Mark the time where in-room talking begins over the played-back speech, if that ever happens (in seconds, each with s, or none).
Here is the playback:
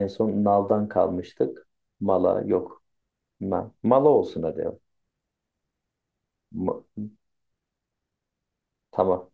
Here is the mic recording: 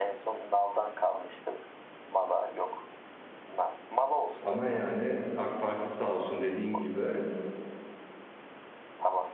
4.4 s